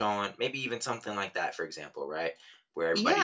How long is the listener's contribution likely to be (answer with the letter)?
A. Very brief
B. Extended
B